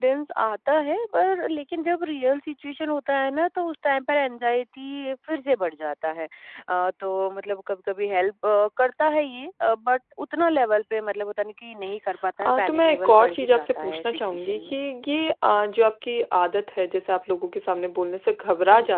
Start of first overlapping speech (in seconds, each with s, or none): 12.4 s